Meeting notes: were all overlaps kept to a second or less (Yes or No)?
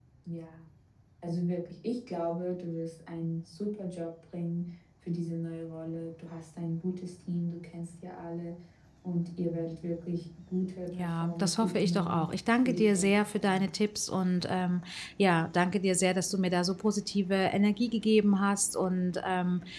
No